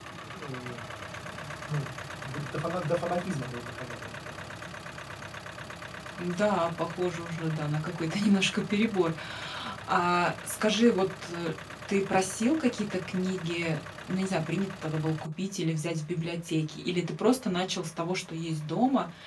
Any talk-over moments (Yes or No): No